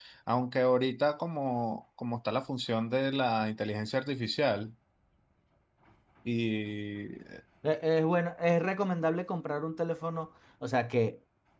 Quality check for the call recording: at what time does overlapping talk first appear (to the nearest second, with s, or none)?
none